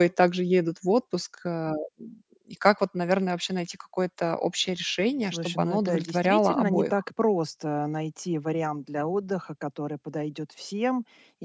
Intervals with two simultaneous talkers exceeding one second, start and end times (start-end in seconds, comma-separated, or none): 5.2-7.0